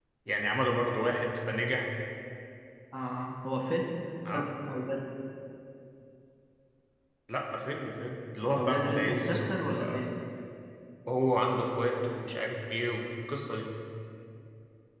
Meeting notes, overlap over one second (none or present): present